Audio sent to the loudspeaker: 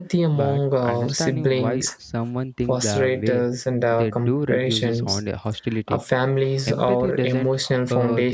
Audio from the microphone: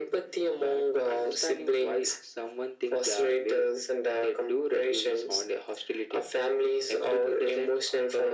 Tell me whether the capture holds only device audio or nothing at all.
Yes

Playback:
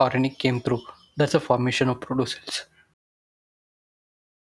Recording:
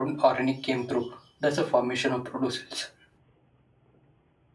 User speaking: No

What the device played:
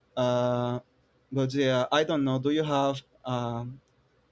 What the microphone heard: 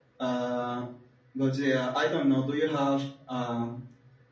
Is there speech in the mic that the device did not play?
No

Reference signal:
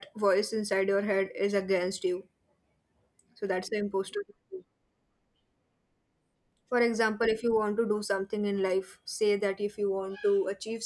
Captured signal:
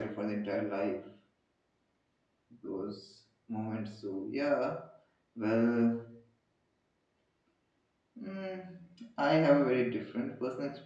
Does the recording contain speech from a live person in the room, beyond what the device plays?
Yes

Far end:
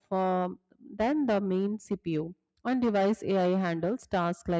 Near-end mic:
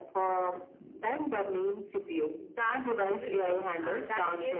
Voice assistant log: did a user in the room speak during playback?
Yes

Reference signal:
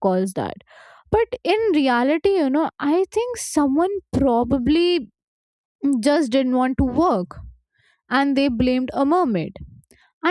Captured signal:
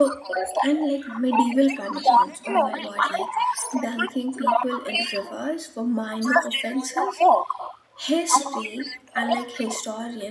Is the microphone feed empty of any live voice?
No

